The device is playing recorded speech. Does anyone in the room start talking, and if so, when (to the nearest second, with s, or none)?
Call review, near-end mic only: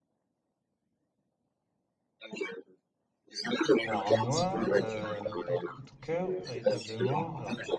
4 s